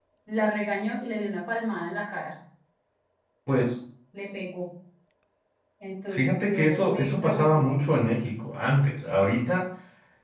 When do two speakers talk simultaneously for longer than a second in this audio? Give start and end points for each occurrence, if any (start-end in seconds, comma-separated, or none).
6.1-7.8